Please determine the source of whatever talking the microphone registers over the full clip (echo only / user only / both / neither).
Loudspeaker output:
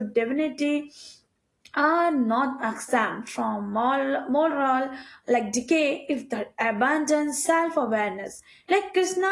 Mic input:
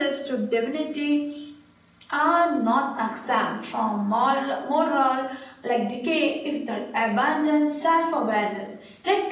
echo only